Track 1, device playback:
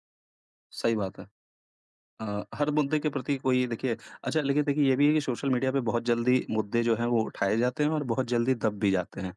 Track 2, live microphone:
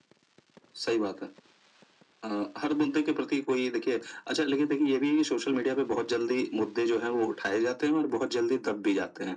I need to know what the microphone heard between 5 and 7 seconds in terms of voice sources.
echo only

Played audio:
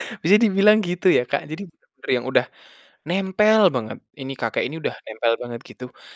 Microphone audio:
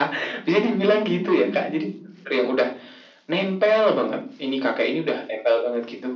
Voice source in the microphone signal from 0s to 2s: both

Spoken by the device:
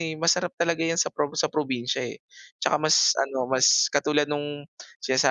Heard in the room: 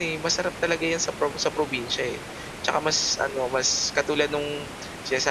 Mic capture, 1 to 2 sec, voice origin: echo only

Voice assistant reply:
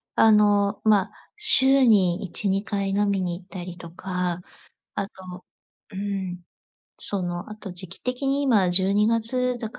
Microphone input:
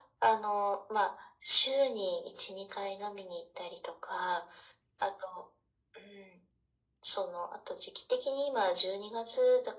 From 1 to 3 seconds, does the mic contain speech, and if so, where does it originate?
echo only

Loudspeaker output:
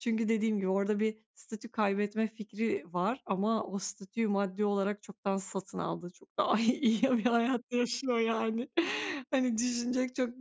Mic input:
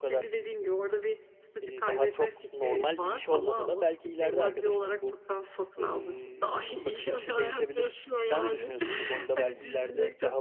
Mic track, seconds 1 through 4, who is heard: both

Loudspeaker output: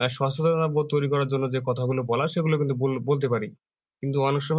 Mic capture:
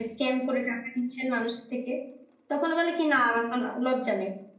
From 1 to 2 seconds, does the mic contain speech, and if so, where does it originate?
user only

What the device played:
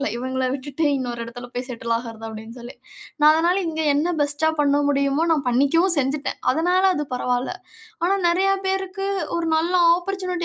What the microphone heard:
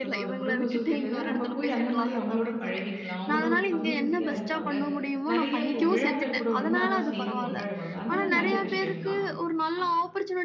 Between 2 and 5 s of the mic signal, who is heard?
both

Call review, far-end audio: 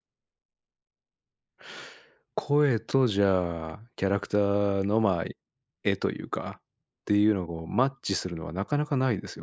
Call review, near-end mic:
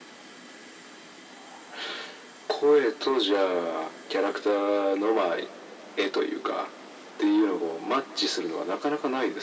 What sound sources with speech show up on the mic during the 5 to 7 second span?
echo only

